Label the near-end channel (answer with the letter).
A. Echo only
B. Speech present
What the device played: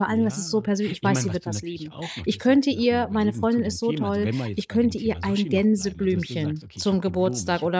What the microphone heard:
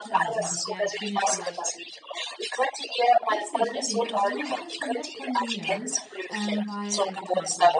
B